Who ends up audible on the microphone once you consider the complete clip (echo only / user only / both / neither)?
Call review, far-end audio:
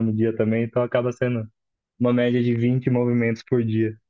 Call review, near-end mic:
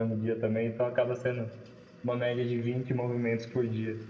echo only